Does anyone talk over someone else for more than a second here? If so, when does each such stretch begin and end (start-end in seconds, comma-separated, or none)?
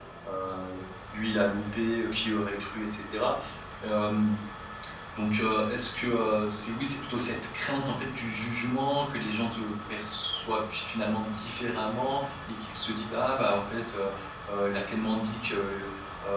none